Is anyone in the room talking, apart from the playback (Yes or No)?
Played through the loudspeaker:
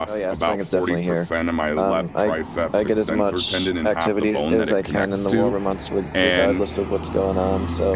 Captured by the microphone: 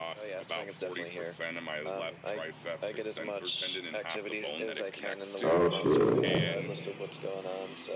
Yes